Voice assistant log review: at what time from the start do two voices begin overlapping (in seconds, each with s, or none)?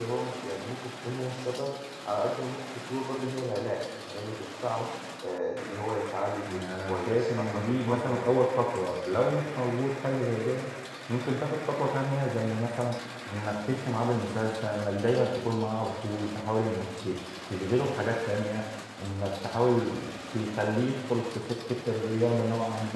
6.5 s